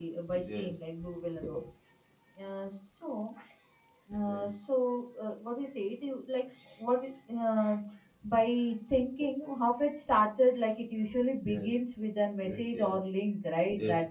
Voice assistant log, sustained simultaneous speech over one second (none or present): none